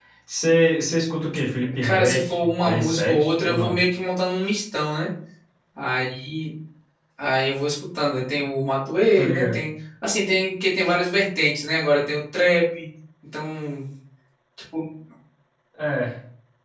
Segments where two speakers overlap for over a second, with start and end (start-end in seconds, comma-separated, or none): 1.8-3.8